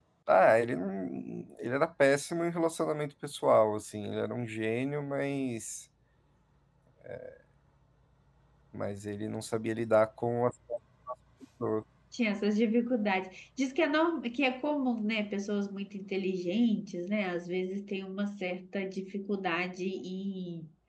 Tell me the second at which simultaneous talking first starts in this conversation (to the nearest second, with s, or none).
none